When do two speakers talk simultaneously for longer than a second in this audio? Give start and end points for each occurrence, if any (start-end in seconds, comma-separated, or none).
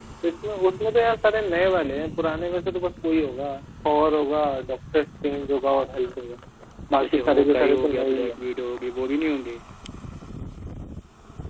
7.0-8.3